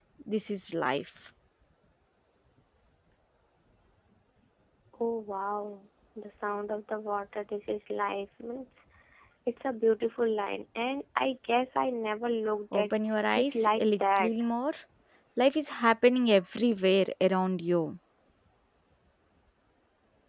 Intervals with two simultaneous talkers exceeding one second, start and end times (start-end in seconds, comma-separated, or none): 12.7-14.3